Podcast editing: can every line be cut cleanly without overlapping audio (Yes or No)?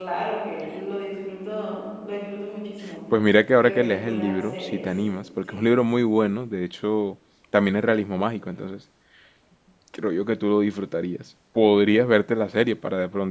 No